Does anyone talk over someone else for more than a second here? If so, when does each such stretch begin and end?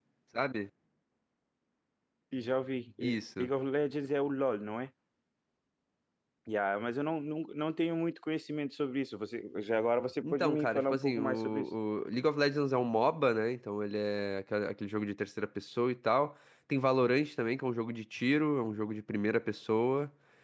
10.2-11.7

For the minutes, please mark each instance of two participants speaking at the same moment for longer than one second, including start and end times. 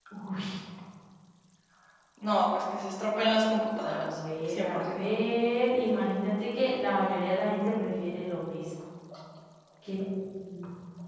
3.8-5.1

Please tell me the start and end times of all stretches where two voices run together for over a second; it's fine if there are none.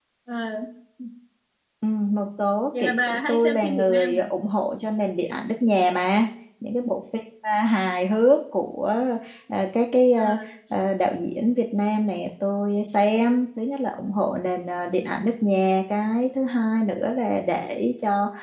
2.8-4.2

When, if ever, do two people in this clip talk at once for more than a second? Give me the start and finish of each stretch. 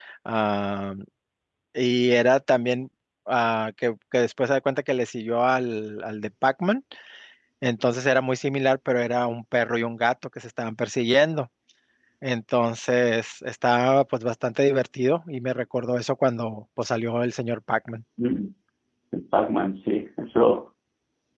none

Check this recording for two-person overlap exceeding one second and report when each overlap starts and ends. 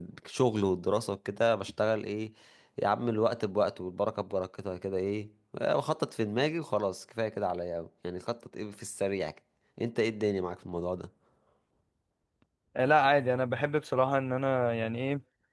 none

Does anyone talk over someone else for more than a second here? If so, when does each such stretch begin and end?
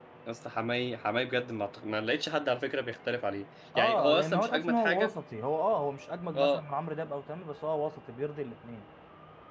3.8-5.1

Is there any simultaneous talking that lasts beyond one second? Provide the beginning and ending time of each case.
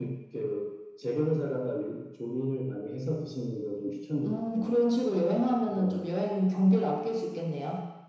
none

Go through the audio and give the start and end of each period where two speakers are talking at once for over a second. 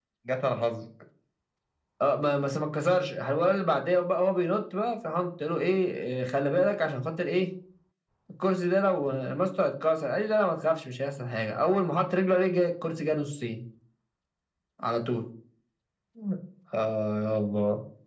none

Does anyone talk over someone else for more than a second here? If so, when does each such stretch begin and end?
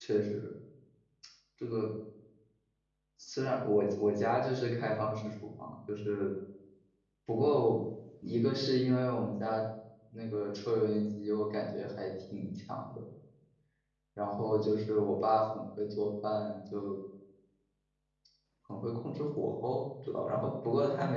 none

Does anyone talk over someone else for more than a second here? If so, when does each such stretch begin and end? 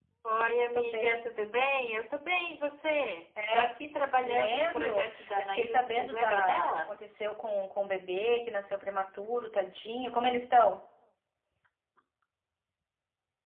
4.2-6.9

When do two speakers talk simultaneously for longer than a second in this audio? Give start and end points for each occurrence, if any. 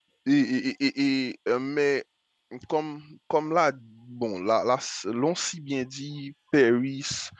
none

